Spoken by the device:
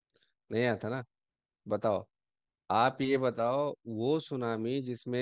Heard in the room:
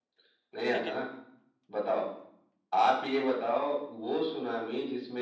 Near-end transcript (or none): ठीक है